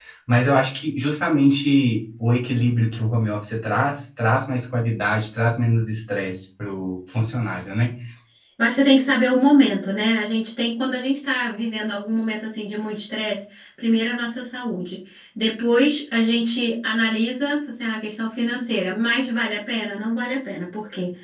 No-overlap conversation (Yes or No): Yes